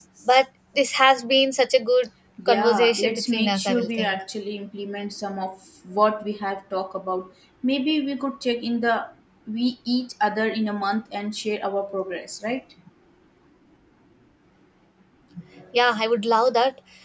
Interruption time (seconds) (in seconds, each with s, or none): 2.4 s